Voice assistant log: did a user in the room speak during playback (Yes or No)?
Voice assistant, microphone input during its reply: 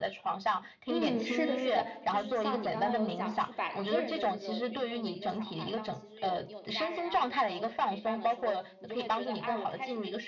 Yes